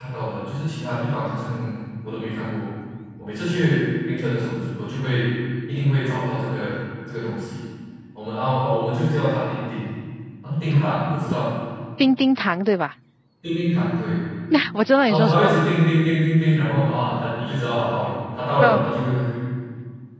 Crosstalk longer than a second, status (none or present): none